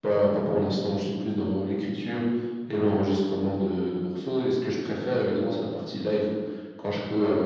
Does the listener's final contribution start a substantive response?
No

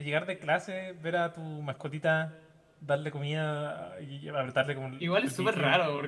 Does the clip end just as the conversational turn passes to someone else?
Yes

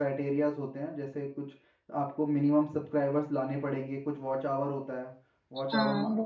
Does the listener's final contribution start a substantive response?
No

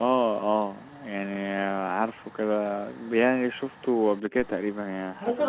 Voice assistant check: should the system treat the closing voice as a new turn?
Yes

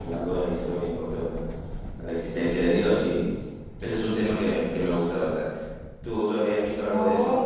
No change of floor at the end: No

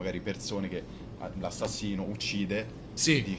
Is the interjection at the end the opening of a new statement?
No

